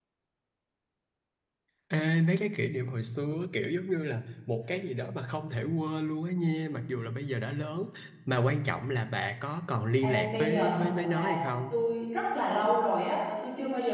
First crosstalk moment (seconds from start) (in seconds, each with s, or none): 10.0 s